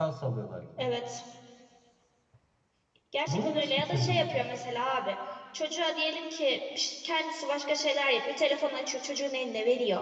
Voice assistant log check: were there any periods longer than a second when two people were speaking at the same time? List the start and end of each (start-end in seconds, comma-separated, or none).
3.3-4.5